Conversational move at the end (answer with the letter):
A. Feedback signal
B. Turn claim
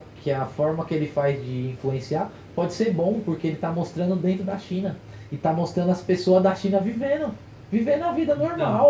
A